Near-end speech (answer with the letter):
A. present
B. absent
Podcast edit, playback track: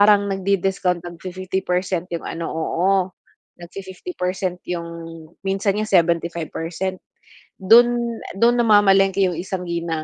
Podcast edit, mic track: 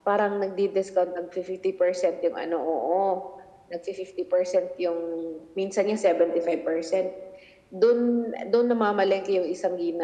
B